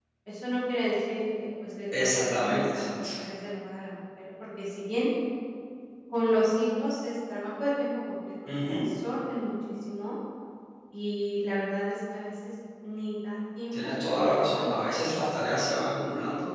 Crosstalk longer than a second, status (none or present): present